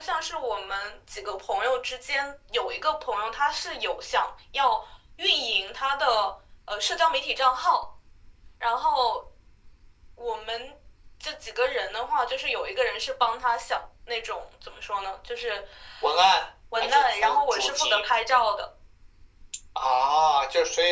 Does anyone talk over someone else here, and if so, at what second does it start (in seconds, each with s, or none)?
16.8 s